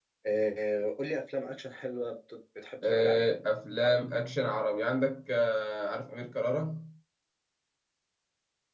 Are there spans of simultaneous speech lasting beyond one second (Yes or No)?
No